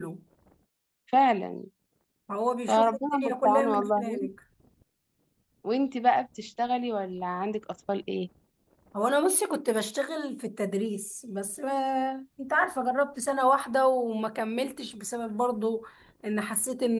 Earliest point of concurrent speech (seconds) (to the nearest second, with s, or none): 3 s